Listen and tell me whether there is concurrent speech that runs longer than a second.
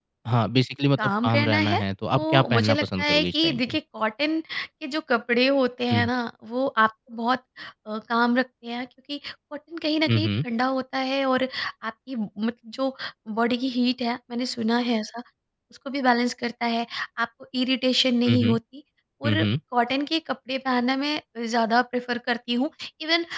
Yes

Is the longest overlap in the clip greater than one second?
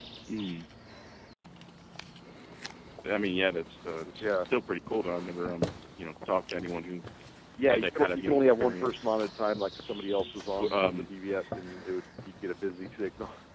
Yes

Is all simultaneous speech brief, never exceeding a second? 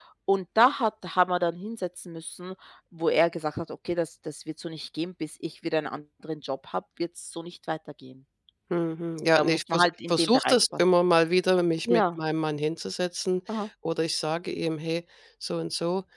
No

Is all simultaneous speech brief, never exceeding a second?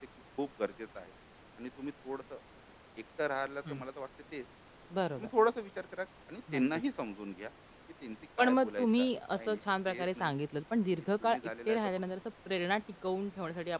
No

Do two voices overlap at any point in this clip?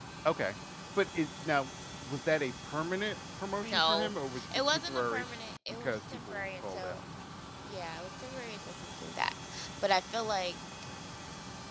Yes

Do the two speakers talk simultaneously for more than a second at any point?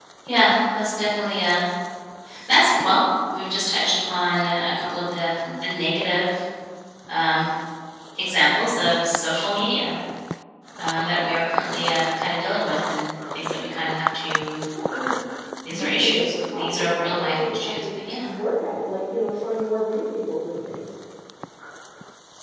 Yes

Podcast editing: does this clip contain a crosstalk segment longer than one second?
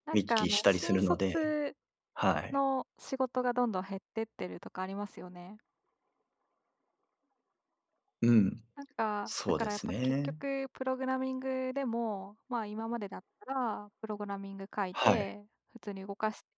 Yes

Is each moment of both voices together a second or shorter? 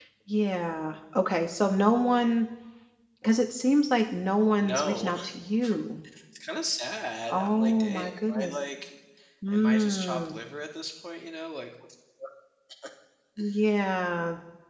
No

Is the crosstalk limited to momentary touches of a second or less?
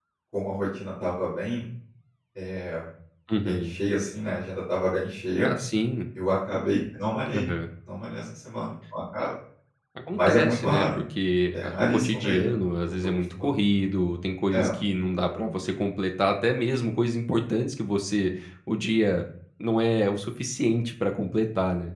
No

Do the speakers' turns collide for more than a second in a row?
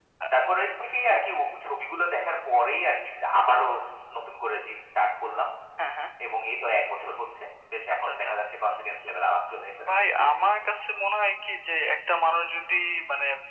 No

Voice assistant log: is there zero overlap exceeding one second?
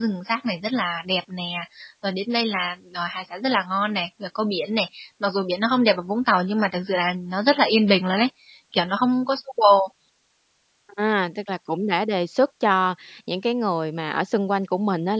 Yes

